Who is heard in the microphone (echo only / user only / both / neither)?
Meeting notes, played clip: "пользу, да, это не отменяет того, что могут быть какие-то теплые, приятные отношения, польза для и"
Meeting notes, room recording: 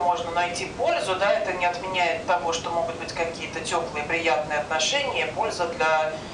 echo only